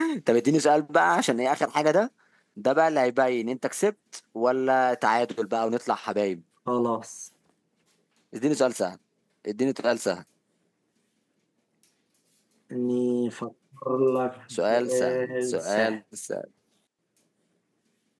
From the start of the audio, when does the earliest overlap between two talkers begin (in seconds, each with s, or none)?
14.5 s